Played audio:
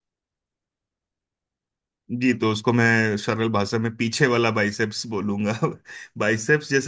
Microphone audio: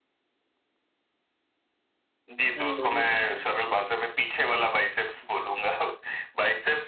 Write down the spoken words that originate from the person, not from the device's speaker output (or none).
हम्म बोलिए बोलिए